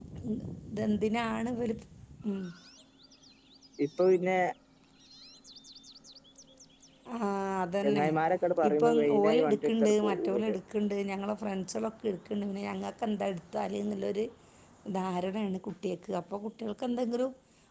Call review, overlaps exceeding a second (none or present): present